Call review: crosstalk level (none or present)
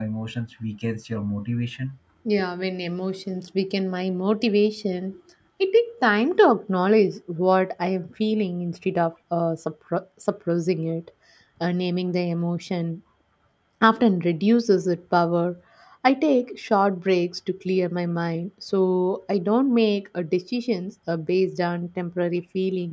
none